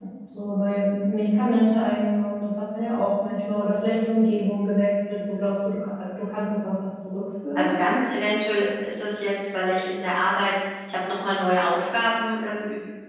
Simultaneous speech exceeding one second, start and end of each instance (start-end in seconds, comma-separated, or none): none